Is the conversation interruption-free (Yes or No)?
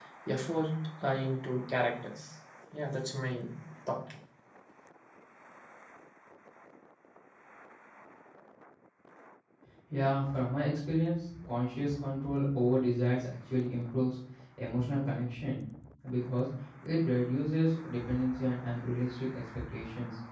Yes